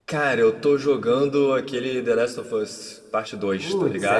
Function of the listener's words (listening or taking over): taking over